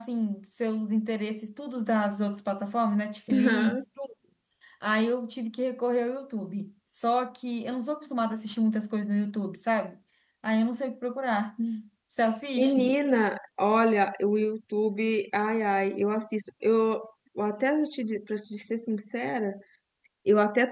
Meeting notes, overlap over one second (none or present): none